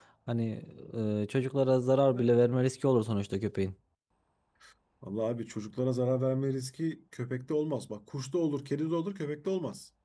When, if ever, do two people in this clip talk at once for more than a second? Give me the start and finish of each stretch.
none

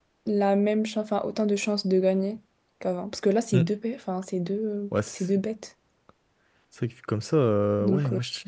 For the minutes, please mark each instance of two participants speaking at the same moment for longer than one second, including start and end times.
none

